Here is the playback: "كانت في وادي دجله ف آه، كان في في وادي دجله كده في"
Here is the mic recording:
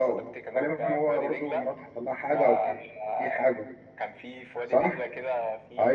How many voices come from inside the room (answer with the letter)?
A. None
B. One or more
B